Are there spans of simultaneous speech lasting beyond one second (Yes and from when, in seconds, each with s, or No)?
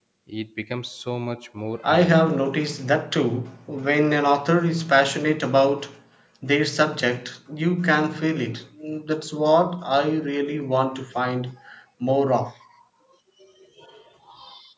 No